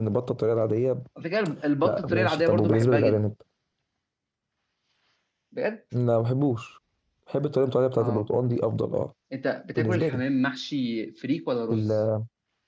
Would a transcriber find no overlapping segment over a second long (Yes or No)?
No